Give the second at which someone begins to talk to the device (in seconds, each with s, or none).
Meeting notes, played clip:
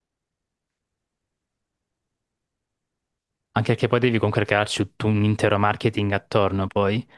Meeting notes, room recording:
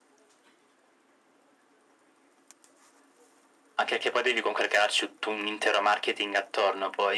none